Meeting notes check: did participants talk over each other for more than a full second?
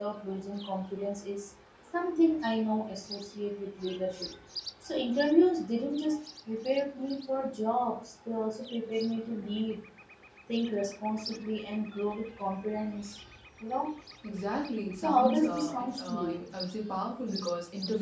Yes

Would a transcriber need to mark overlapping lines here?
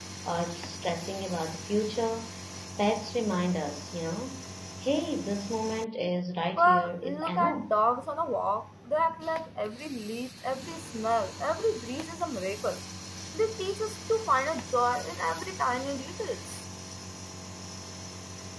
Yes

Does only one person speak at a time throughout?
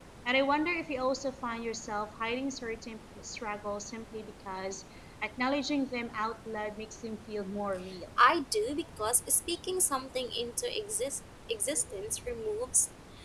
Yes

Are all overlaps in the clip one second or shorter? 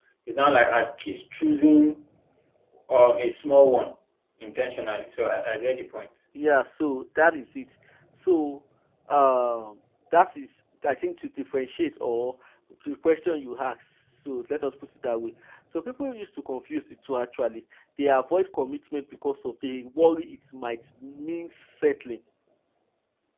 Yes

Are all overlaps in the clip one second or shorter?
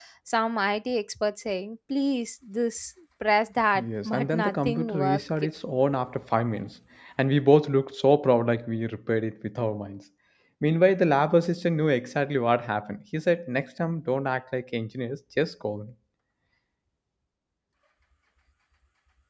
No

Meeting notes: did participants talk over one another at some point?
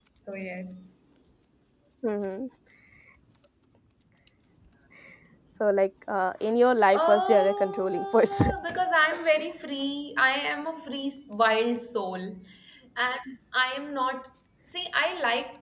Yes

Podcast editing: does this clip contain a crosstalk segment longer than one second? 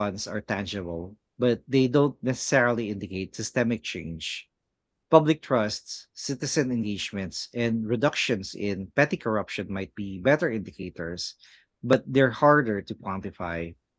No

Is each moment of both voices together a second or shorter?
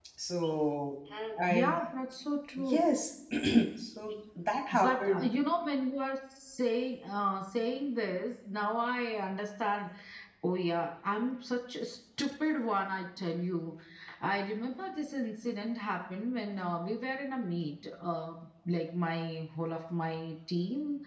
Yes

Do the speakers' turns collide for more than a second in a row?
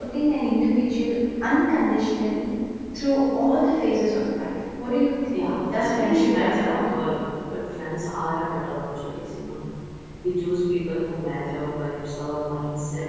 Yes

